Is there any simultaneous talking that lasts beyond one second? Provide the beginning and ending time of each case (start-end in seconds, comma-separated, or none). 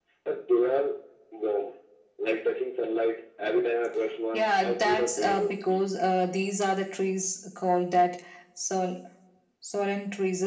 4.3-5.9